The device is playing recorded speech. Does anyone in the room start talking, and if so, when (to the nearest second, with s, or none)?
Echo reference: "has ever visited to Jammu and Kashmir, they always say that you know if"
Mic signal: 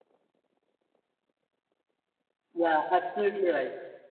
3 s